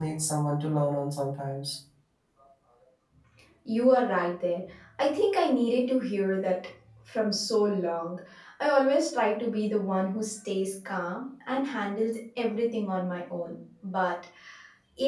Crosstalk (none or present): none